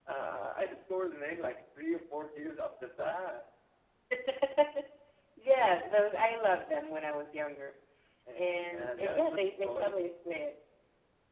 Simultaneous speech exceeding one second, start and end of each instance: 8.4-10.0

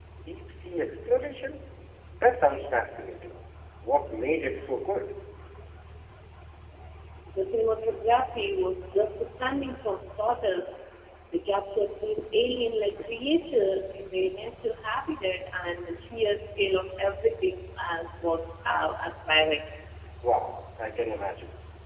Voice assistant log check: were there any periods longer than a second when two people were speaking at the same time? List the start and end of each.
none

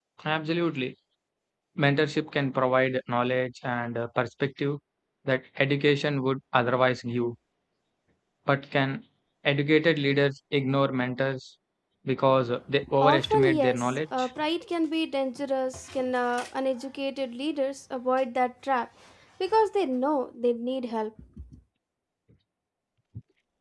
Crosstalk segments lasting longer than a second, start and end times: 13.0-14.3

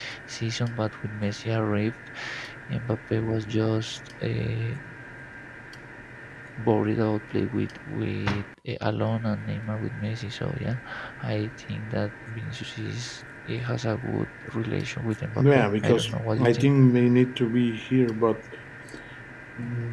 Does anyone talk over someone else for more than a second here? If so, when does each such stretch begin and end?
15.4-16.7

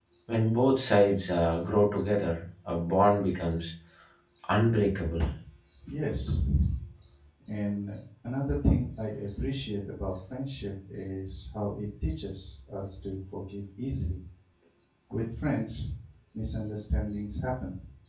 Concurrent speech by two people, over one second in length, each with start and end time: none

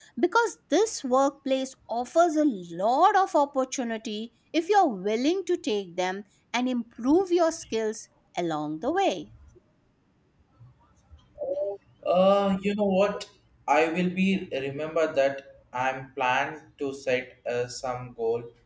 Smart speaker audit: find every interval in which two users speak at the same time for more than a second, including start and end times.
none

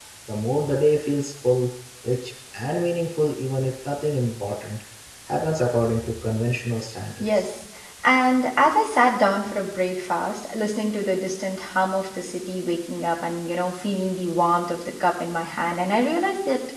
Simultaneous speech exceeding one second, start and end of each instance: none

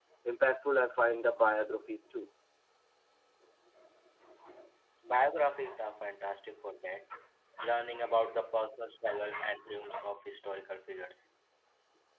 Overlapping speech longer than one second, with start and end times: none

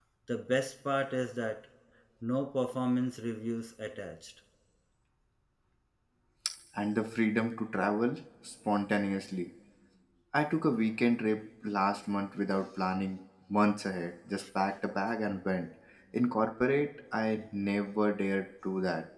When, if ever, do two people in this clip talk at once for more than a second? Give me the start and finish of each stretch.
none

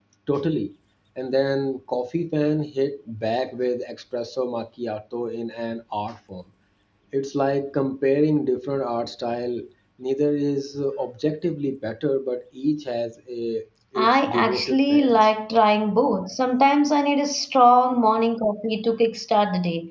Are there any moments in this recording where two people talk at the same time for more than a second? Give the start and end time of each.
14.0-15.3

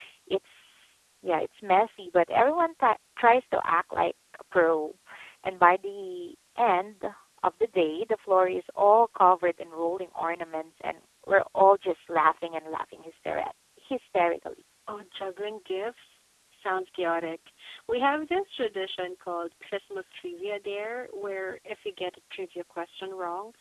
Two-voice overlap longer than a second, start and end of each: none

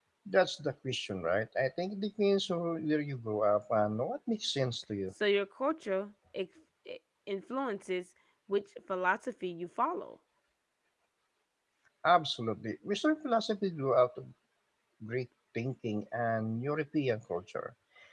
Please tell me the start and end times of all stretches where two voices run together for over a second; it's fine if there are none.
none

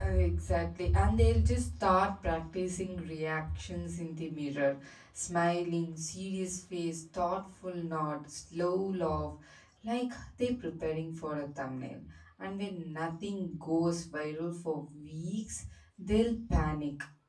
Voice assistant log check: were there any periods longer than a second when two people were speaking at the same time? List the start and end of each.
none

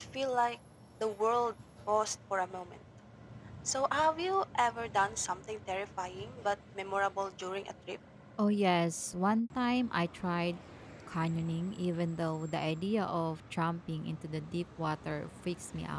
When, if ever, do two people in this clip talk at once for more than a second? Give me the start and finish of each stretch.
none

